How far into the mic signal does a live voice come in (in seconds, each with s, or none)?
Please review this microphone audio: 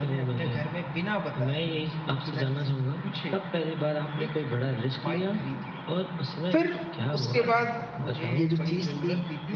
6.5 s